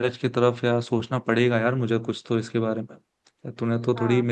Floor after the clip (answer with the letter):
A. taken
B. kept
B